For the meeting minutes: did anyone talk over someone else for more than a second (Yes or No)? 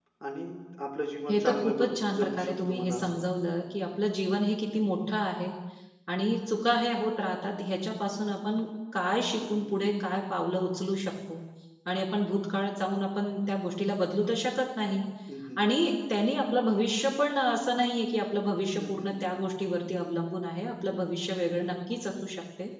Yes